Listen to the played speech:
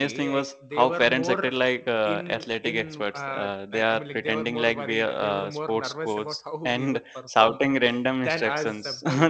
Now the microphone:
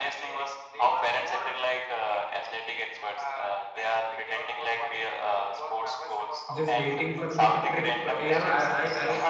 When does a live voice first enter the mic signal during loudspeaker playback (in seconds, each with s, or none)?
6.6 s